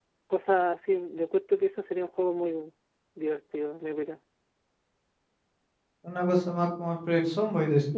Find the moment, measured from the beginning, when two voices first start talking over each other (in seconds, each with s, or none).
none